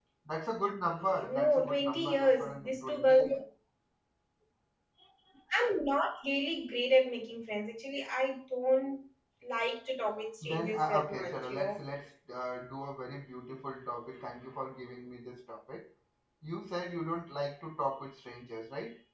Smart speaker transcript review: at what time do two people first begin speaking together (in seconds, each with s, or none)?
1.3 s